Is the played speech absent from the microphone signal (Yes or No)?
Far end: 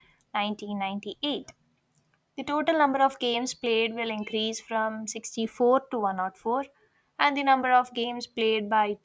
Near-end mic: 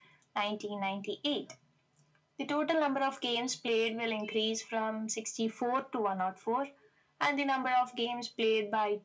No